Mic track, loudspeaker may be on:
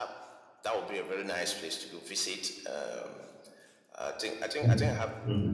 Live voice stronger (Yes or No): Yes